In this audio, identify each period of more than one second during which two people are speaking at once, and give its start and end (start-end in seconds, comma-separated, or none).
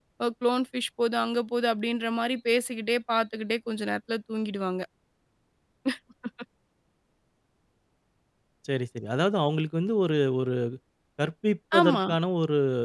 none